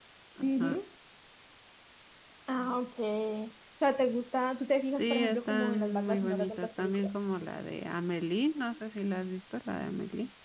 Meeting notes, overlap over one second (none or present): present